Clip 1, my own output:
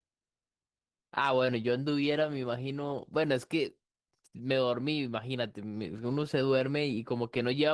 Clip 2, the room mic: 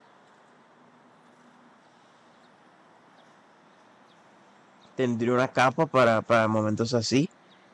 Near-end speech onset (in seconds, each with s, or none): 4.9 s